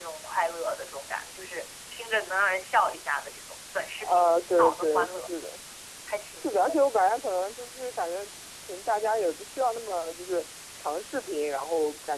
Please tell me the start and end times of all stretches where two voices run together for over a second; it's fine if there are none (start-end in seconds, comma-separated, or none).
4.0-5.2